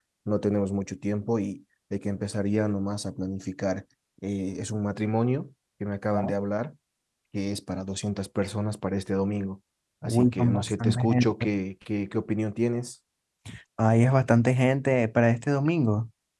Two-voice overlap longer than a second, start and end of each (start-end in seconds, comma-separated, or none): 10.0-11.3